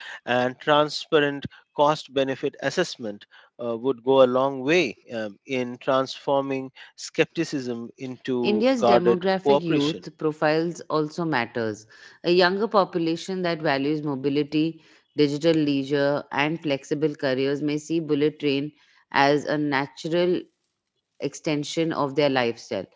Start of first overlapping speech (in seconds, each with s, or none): 8.4 s